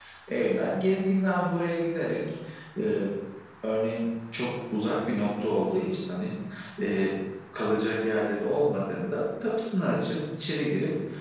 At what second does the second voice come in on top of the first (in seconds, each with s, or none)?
none